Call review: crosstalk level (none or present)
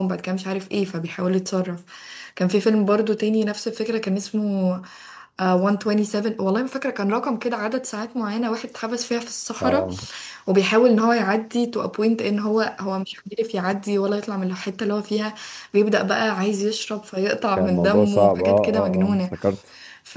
present